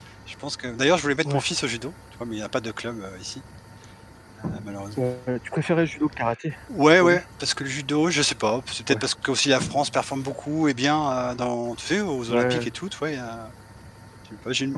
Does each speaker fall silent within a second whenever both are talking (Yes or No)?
Yes